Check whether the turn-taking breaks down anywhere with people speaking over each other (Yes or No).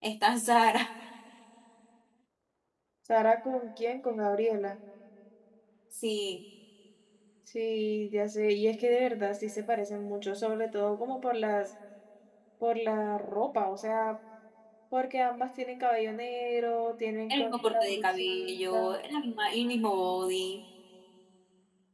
Yes